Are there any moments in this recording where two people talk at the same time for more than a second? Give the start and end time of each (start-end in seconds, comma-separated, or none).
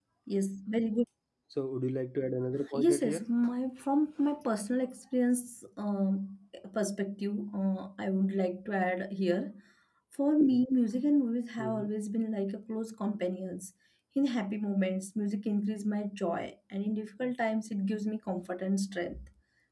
none